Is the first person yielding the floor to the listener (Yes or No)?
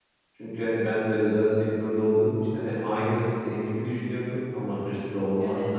No